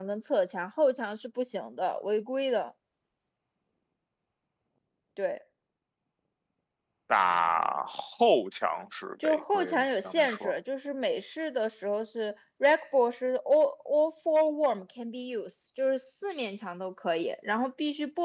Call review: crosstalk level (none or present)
present